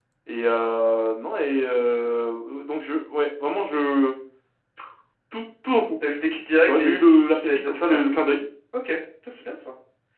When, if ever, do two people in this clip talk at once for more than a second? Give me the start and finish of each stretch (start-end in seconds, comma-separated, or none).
6.6-8.1